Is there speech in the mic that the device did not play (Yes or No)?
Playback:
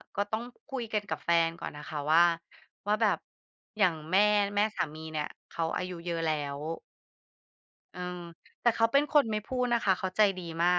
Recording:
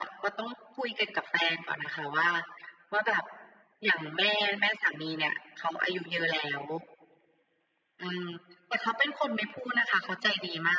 No